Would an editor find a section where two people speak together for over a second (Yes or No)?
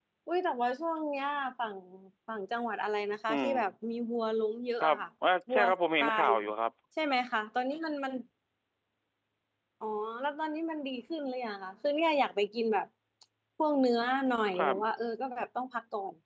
No